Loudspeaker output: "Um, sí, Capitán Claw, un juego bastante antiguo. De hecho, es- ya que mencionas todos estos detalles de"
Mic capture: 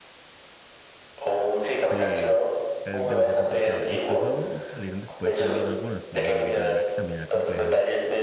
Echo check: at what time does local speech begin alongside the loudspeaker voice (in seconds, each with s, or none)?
1.8 s